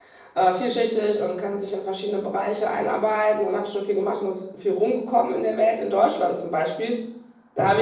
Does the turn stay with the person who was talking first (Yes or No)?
Yes